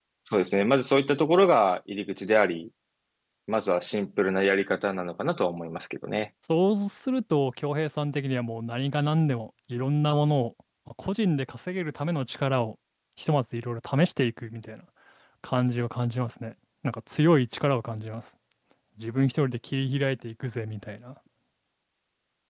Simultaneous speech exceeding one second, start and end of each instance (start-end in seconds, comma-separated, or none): none